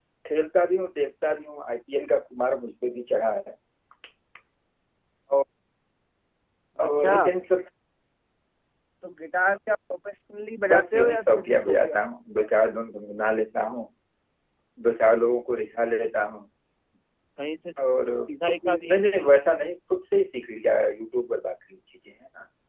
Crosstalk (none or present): present